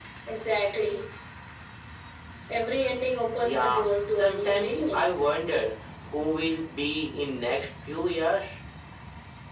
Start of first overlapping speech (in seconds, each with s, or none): 3.4 s